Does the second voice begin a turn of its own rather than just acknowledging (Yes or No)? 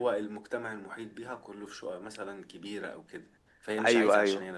No